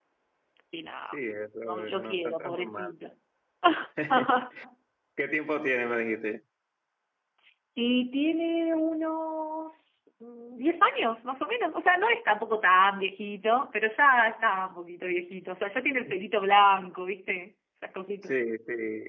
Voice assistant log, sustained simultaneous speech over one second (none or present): present